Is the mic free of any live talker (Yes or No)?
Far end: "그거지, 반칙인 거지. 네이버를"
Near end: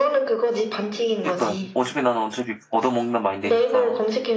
No